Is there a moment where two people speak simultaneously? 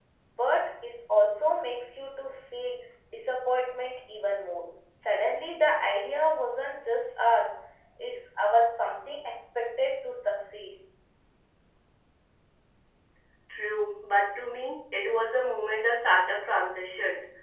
No

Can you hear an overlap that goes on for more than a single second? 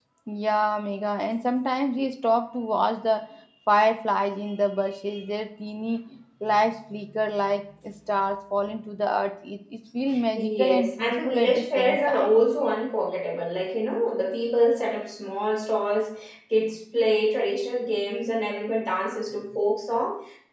Yes, from 10.4 s

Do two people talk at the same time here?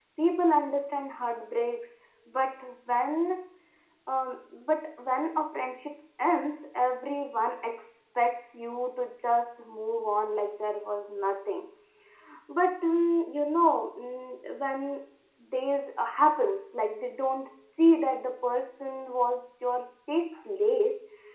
No

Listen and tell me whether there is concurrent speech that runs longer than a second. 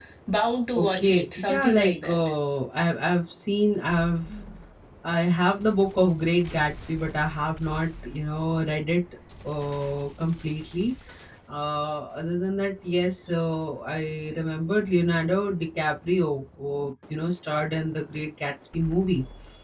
Yes, from 0.8 s

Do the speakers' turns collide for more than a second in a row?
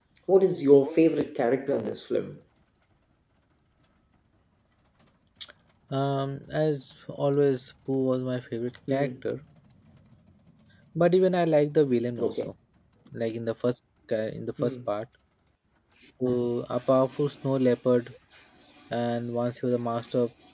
No

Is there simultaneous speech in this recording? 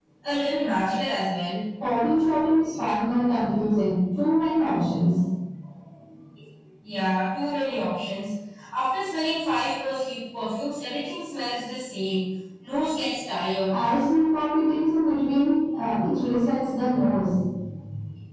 No

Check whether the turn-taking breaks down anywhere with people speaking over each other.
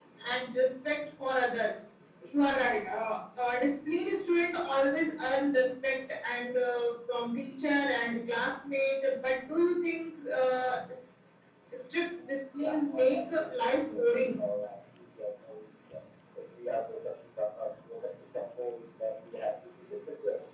Yes, from 12.6 s

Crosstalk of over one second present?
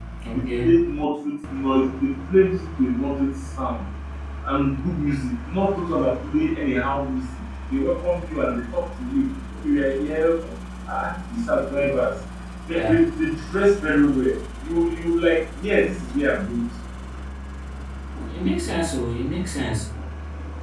No

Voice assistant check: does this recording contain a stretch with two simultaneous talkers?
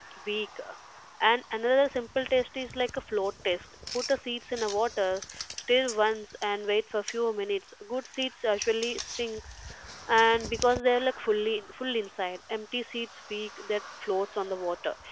No

